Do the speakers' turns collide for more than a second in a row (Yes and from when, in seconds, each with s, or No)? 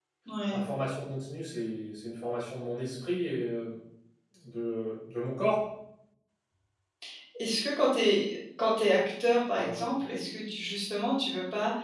No